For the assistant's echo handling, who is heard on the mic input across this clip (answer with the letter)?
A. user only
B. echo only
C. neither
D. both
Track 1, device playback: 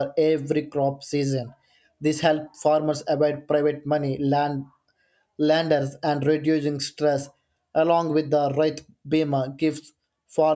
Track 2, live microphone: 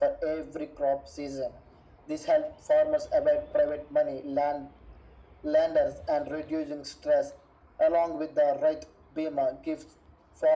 B